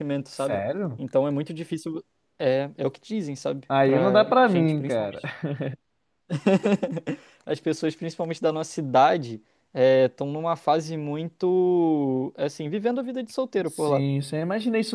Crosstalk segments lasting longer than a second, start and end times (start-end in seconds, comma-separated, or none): 3.9-5.2